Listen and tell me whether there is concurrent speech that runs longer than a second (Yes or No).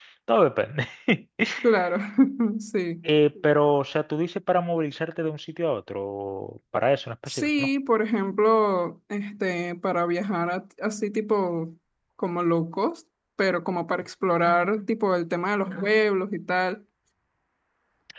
No